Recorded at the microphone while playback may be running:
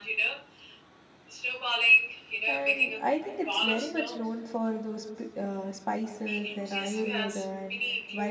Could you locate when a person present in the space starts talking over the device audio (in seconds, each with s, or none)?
2.5 s